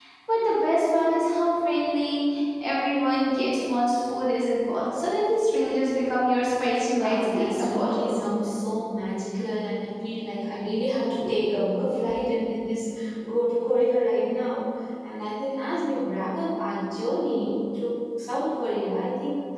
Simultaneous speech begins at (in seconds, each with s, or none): 6.9 s